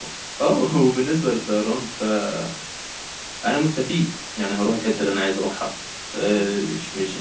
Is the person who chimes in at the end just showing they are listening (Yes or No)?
Yes